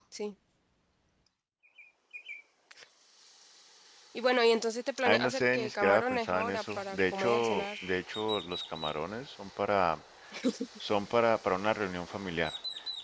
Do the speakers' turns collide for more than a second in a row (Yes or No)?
Yes